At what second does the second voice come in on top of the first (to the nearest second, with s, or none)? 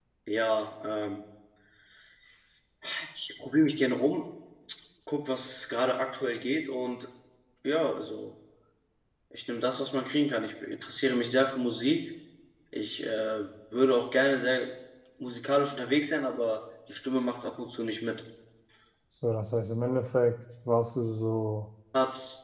none